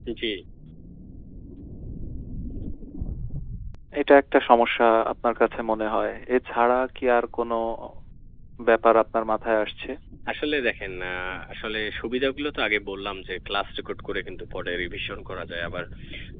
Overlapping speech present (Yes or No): No